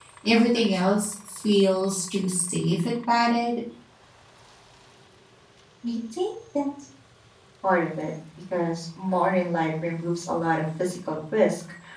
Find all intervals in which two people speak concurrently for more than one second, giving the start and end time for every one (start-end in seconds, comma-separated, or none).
none